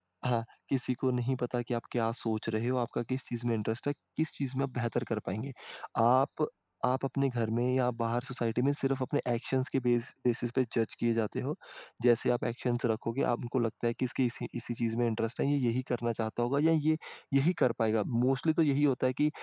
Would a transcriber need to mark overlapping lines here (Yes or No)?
No